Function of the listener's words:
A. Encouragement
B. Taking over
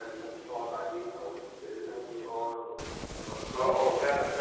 B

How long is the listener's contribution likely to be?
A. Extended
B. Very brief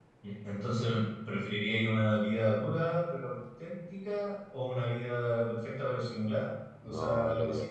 A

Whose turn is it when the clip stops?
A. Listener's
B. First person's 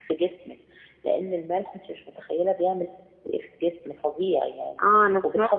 A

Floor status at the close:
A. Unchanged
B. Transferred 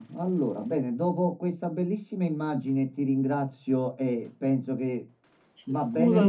A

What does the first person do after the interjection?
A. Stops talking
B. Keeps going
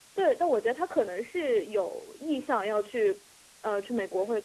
A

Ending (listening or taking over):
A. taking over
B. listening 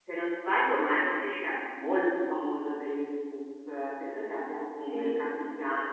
B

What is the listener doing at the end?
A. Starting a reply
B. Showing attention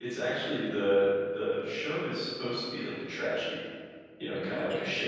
B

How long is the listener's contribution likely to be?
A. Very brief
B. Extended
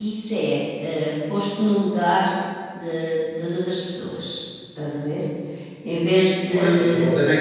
B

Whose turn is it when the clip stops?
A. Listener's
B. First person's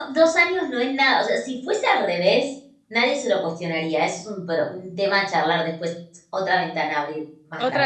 A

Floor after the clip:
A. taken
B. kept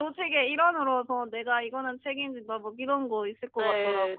A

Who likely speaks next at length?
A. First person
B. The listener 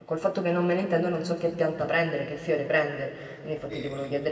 A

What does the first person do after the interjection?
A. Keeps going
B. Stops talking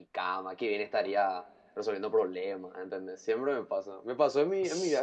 A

